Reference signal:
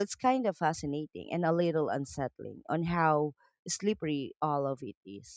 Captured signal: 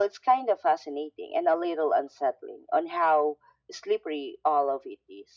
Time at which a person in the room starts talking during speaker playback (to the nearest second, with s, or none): none